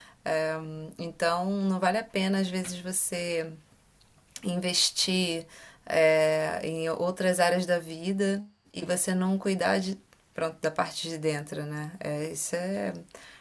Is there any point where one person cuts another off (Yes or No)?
No